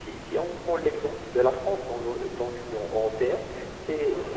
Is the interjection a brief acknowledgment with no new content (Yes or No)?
Yes